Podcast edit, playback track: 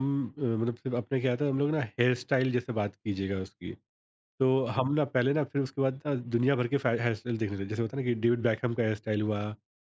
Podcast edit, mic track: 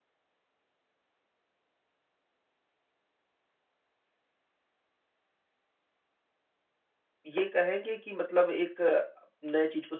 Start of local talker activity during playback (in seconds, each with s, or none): 7.2 s